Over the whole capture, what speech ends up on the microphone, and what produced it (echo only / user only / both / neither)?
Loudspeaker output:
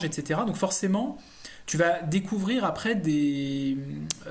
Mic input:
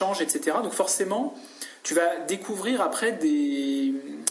echo only